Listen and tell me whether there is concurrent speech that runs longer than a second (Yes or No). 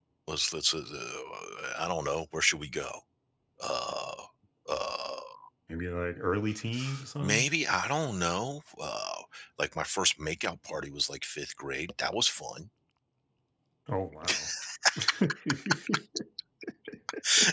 No